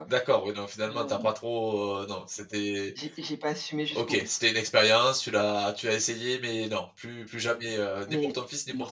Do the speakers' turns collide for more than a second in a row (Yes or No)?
No